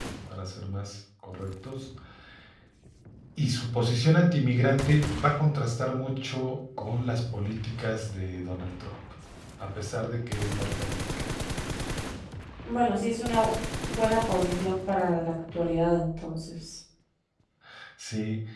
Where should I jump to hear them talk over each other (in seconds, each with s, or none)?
none